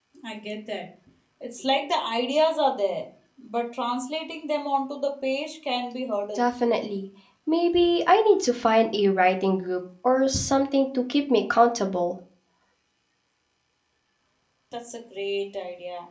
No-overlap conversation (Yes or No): Yes